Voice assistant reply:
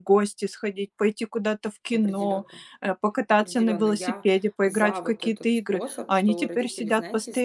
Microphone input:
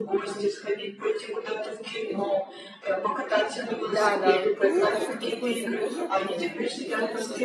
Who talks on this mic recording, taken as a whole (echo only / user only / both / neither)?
both